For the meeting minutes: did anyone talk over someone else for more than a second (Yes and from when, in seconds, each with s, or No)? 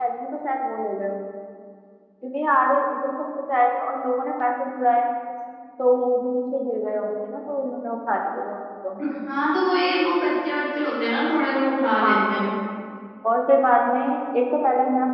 No